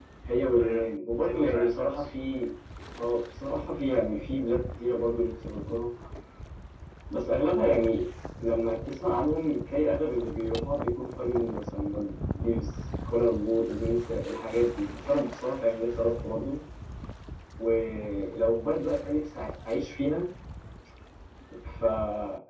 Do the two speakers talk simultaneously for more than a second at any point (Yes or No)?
Yes